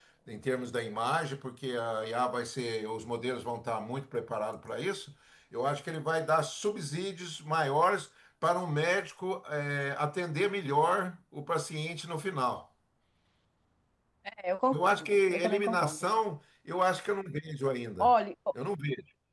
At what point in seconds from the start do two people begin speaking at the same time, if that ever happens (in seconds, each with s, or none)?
14.7 s